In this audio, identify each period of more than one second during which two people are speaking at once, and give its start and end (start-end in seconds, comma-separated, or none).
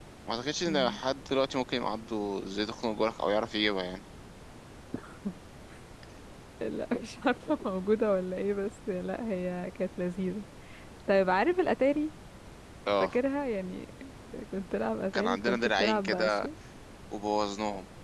15.1-16.5